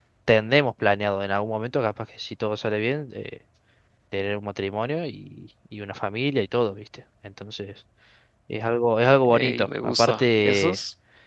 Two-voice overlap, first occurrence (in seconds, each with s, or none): 9.3 s